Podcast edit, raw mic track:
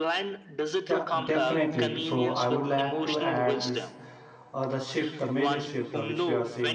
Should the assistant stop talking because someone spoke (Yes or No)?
Yes